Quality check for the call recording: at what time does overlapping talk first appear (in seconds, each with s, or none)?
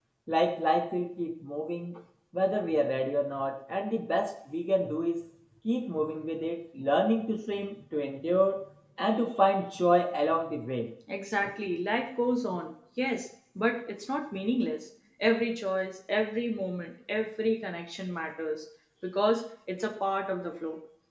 none